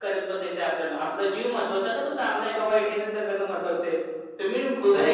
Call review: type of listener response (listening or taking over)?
taking over